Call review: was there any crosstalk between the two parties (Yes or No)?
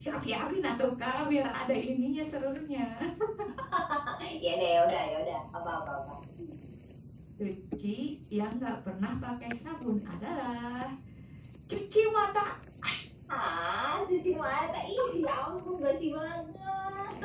No